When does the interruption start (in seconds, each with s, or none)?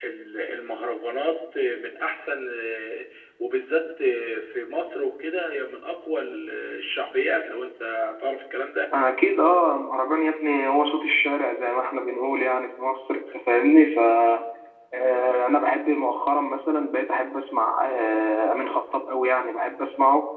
none